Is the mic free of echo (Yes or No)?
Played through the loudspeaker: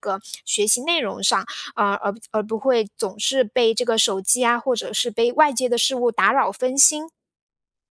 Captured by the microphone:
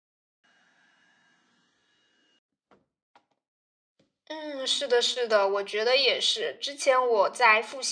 Yes